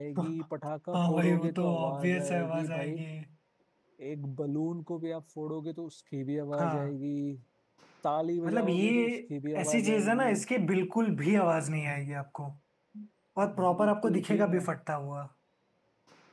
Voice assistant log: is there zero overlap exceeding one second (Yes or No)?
No